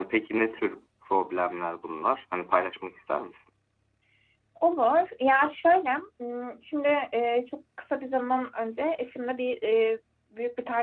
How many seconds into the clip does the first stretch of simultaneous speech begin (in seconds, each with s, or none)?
none